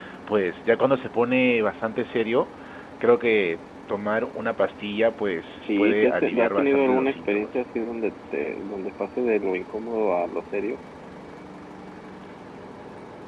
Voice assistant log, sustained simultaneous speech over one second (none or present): present